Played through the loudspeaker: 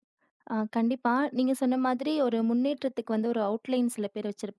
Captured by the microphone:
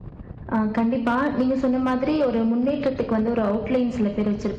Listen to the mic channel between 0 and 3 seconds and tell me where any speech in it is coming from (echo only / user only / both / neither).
echo only